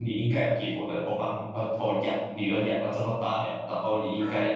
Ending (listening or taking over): listening